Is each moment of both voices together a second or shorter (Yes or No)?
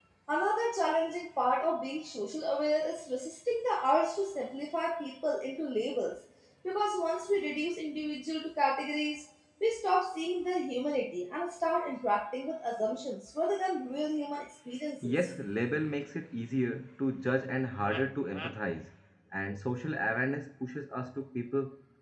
Yes